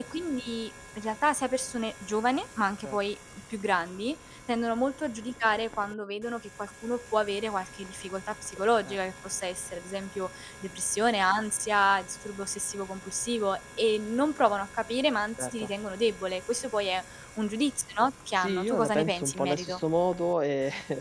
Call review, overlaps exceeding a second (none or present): present